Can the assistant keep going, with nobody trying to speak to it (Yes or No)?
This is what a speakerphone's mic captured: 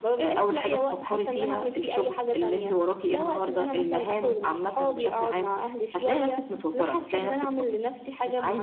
Yes